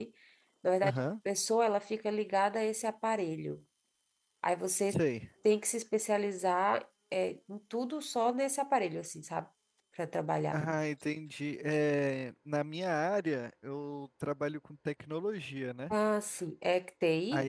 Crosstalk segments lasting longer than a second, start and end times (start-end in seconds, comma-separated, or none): none